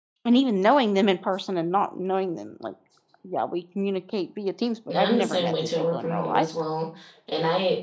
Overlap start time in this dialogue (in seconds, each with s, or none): 4.9 s